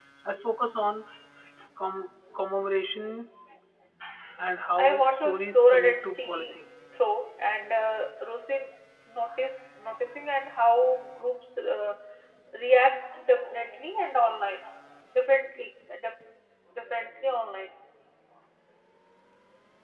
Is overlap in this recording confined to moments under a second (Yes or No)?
No